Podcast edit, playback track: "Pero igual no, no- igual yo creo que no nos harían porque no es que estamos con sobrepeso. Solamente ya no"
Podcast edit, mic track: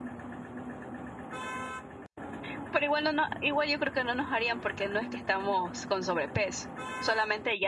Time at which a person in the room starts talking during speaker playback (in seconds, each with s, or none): none